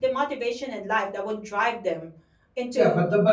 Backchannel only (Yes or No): No